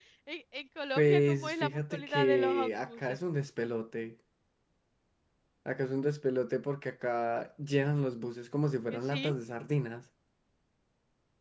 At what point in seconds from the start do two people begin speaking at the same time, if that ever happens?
1.0 s

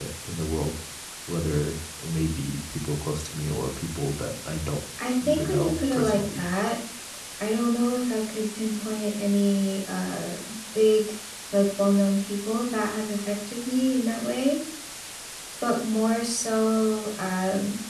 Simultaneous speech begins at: 5.0 s

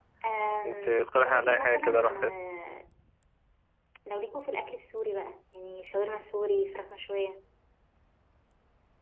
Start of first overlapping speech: 0.6 s

